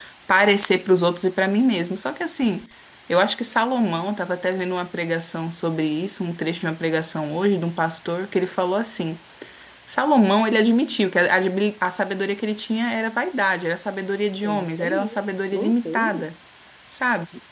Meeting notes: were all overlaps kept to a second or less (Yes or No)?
No